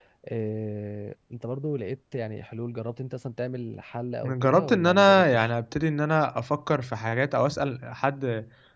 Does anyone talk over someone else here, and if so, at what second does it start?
4 s

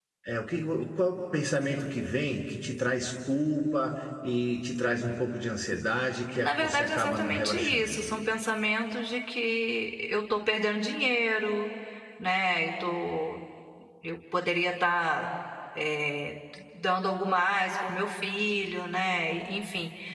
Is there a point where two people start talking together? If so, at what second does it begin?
6 s

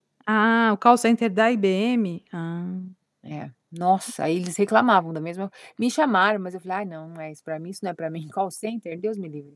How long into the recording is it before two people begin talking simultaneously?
none

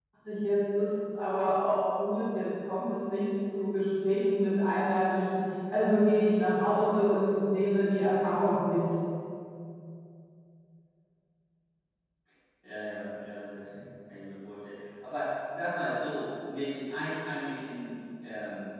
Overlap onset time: none

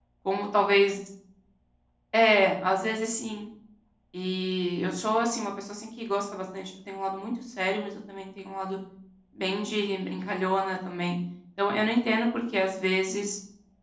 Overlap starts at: none

